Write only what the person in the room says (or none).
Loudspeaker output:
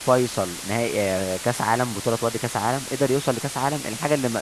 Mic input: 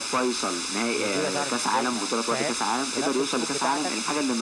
ونيجيريا صعدت ازاي مع إن- فاهم بنفس الظروف بتاعتك